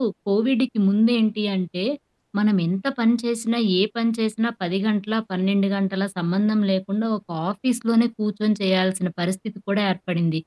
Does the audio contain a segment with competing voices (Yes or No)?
No